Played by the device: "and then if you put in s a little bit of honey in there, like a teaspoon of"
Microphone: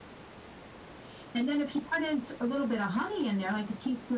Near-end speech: none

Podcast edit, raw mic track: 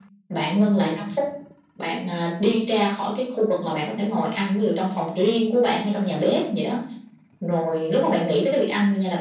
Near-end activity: none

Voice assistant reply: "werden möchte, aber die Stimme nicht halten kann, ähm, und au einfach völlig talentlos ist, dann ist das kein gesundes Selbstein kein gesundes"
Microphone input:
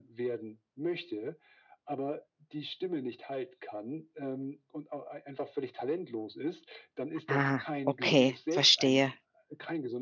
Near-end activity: present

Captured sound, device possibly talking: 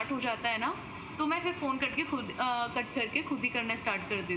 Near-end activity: none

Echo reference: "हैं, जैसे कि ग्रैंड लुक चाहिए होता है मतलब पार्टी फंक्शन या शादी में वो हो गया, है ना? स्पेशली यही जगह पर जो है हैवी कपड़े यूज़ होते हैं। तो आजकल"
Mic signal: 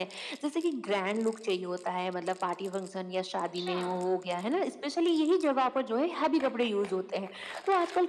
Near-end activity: present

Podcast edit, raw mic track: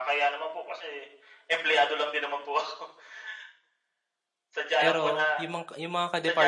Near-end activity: present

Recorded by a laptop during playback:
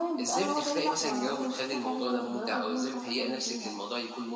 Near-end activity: none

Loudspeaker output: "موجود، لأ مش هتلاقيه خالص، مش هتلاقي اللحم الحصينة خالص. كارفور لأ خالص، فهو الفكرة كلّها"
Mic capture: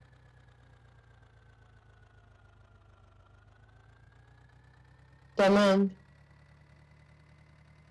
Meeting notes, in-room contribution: present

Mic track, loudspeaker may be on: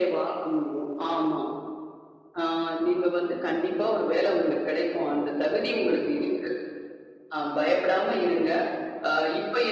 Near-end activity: none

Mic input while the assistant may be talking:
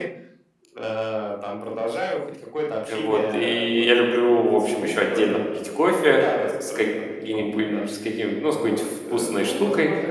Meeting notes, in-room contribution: present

